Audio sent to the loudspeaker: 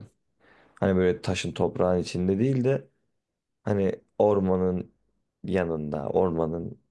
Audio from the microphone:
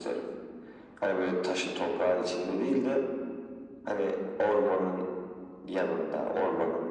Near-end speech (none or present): none